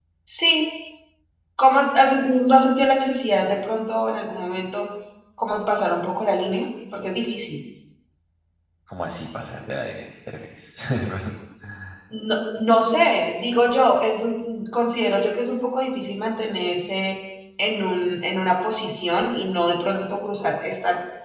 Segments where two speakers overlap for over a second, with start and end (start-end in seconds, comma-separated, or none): none